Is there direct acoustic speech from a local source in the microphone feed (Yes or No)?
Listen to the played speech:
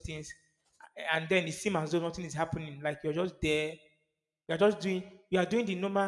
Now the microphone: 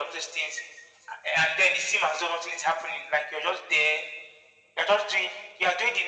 No